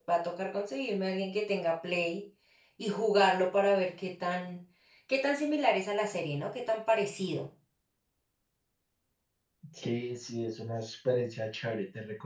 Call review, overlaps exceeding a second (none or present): none